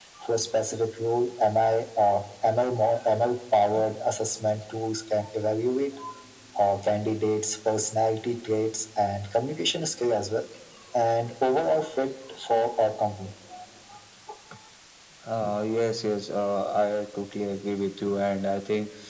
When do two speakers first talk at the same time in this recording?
none

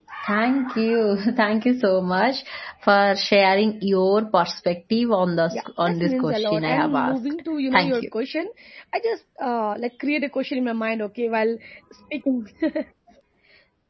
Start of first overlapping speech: 5.5 s

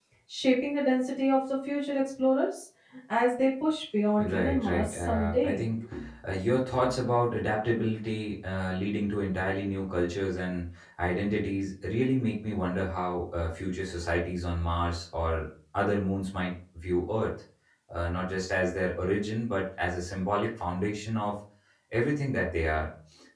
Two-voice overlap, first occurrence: 4.2 s

